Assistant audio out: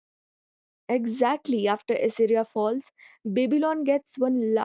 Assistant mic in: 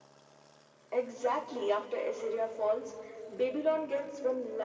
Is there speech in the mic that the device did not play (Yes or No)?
No